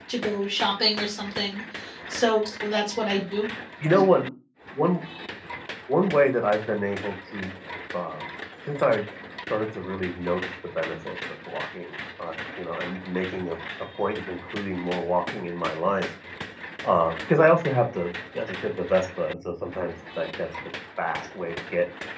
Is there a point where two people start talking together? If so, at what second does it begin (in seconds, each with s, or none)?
none